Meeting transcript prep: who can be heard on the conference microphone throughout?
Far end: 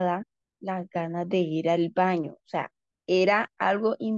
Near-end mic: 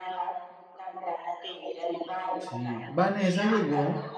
both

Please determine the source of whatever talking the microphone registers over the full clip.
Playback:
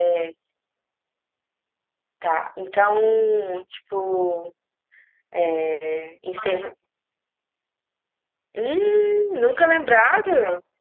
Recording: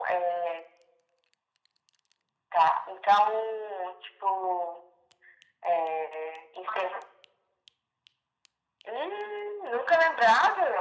echo only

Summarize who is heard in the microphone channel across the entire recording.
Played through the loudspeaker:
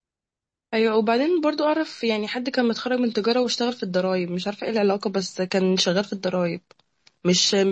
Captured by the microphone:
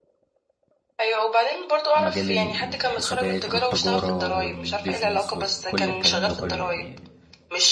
both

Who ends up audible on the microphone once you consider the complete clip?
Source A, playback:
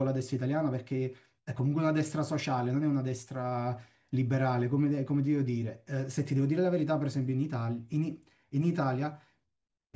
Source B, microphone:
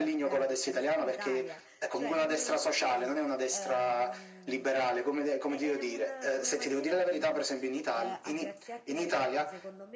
both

